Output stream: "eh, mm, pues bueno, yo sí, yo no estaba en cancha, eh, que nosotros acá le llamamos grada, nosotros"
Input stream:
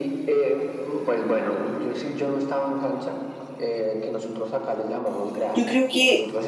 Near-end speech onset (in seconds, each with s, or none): 5.5 s